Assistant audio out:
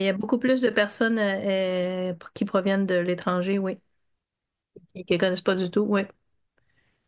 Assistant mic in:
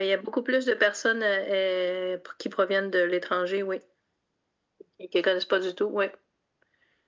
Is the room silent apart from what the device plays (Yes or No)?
Yes